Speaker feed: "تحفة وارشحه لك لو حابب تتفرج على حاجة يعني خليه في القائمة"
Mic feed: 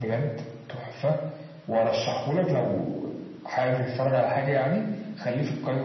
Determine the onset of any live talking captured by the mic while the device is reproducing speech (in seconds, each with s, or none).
none